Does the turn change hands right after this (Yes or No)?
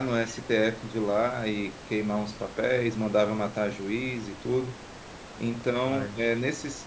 No